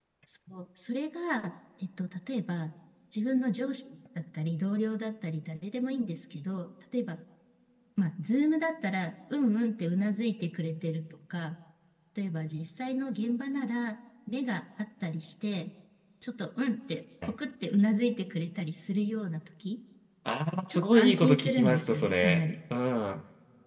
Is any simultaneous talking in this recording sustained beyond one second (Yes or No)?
Yes